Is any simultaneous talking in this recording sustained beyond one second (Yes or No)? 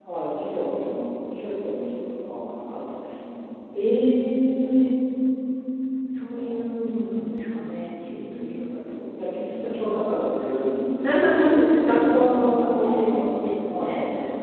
Yes